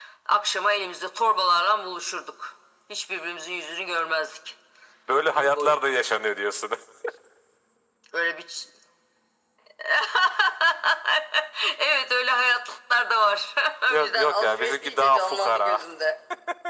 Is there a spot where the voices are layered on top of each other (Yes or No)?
Yes